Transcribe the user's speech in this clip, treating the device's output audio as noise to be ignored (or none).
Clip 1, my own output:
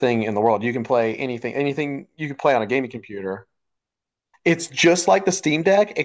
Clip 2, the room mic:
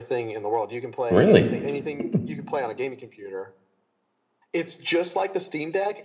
Really? Hmm.